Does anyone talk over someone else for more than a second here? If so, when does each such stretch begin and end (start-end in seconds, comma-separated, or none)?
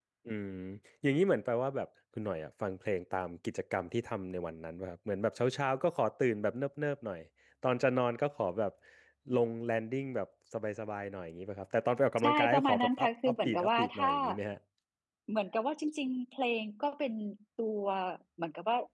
12.2-14.1